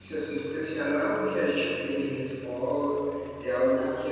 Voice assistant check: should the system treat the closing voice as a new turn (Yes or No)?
No